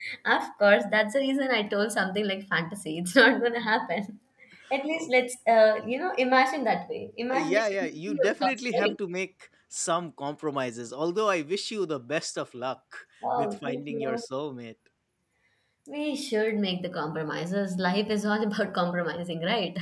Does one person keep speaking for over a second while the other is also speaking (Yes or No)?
Yes